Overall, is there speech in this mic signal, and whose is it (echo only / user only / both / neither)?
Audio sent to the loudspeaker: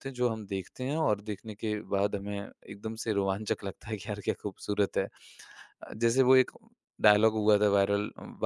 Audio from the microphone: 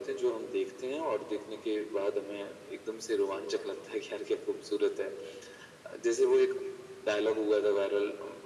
echo only